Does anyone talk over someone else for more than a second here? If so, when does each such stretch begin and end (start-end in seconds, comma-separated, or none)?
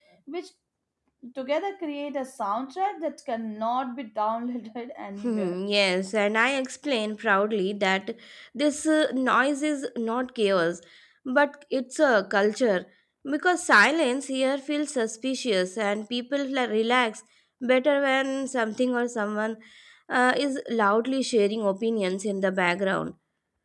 none